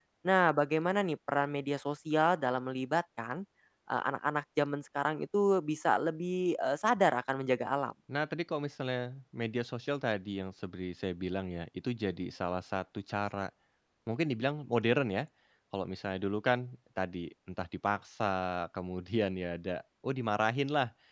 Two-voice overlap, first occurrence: none

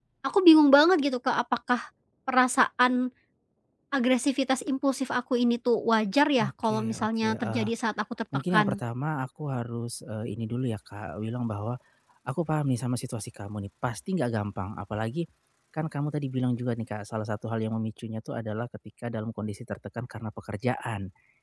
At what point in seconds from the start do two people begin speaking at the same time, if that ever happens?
6.4 s

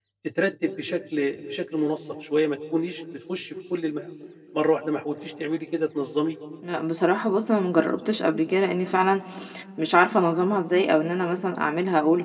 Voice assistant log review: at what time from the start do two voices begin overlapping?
none

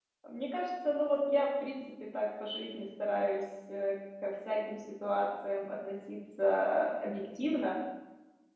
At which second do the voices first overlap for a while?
none

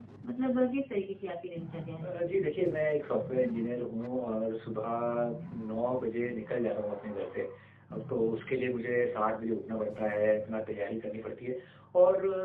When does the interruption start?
none

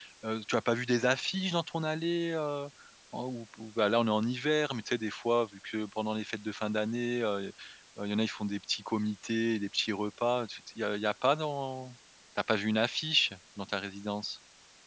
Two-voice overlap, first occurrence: none

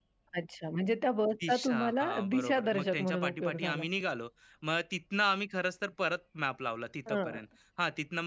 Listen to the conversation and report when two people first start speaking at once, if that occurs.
1.5 s

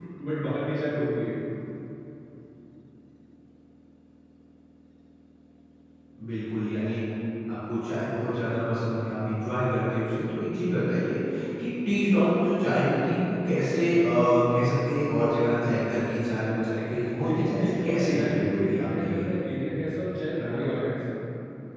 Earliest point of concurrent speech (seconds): 17.2 s

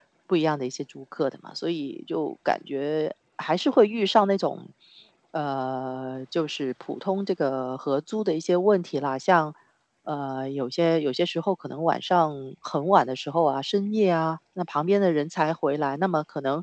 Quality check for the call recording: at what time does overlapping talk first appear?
none

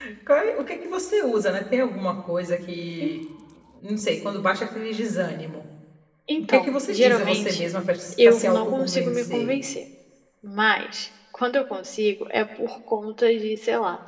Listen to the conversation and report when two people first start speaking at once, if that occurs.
6.5 s

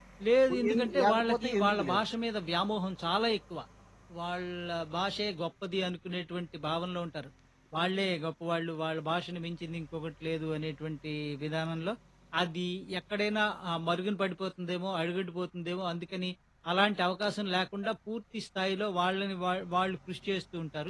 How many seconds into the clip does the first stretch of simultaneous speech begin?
0.5 s

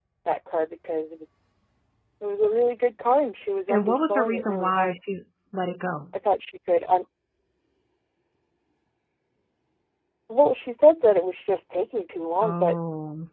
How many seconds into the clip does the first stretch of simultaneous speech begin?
3.7 s

